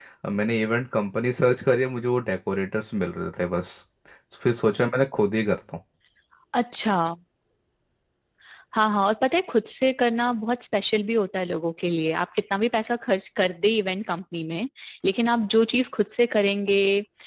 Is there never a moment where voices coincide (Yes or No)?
Yes